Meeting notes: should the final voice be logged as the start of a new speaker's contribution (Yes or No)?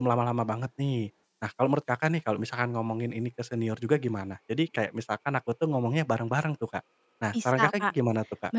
Yes